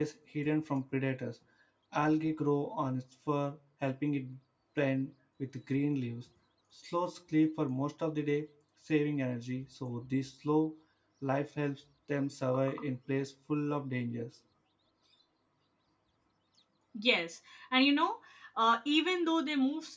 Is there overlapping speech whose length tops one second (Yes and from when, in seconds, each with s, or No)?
No